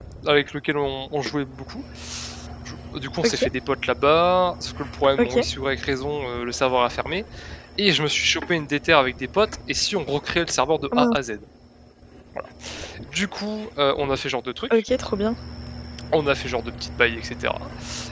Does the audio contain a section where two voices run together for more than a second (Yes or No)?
No